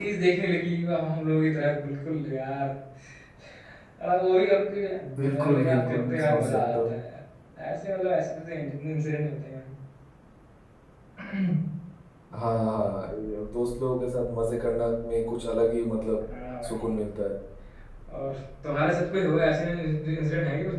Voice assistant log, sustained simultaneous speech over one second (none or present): present